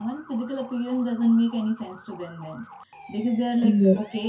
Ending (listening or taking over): listening